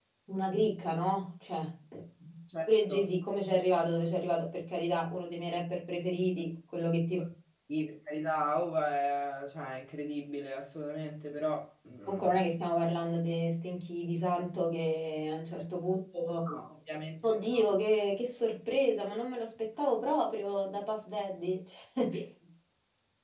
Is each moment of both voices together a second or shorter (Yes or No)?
Yes